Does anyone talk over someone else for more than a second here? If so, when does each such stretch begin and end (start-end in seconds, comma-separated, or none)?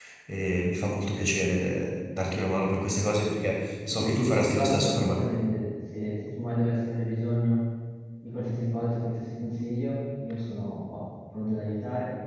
3.9-5.2